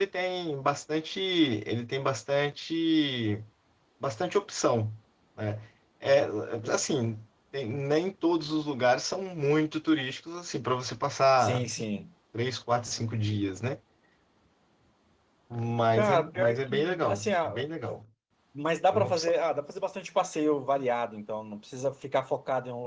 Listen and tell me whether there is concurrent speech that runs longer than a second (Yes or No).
Yes